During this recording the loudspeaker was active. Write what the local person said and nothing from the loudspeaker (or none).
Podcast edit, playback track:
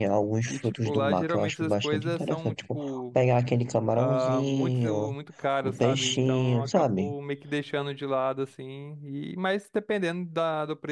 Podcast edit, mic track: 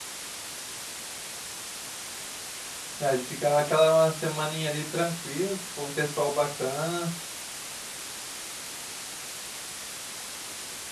né? De ficar aquela uma semaninha ali tranquilo, se tipo, um pessoal bacana,